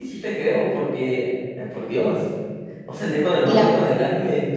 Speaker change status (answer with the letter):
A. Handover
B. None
B